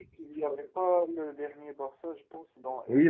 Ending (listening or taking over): taking over